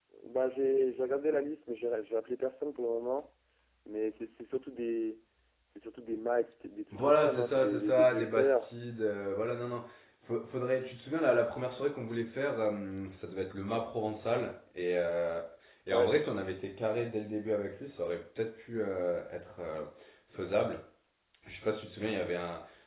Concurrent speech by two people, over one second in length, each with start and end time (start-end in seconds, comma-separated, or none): 6.9-8.7